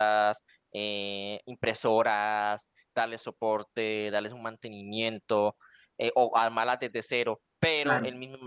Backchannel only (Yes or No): Yes